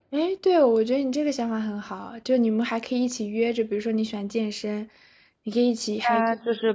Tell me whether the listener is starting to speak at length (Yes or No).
Yes